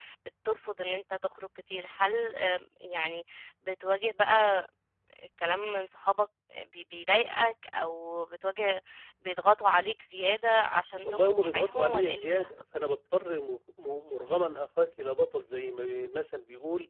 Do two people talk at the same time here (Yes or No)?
Yes